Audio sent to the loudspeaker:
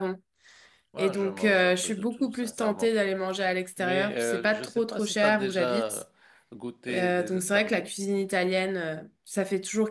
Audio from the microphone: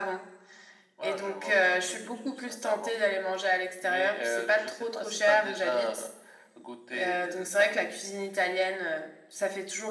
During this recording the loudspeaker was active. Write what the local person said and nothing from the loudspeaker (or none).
none